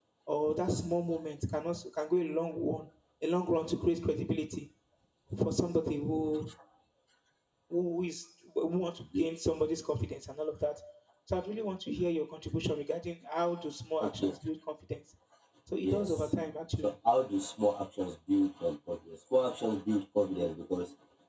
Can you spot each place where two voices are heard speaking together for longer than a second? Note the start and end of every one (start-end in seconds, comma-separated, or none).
none